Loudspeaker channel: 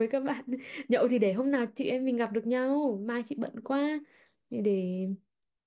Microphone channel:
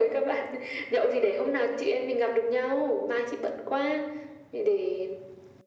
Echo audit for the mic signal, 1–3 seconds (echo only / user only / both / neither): echo only